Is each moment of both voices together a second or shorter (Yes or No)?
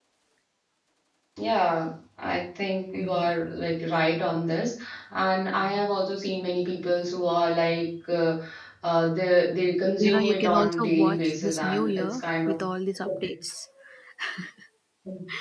No